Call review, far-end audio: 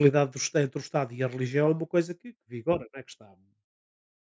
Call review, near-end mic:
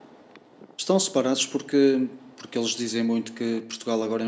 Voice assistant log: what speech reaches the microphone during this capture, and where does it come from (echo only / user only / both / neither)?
user only